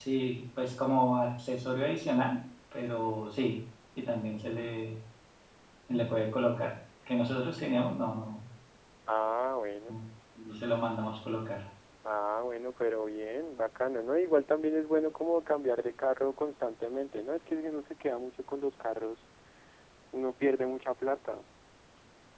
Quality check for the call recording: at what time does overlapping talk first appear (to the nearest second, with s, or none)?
none